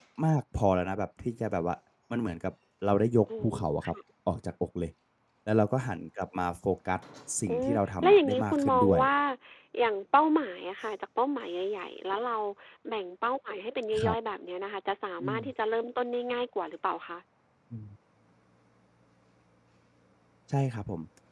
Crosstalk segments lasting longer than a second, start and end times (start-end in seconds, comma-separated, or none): 7.5-9.0